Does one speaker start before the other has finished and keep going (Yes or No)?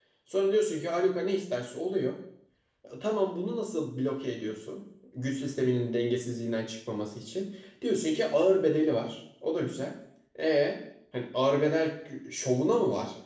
No